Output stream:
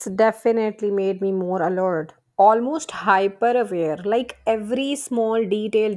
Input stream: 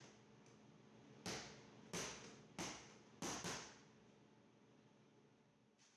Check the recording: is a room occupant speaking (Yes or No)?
No